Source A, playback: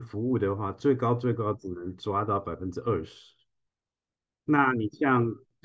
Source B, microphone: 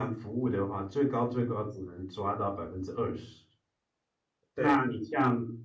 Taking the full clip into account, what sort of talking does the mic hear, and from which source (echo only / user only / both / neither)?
both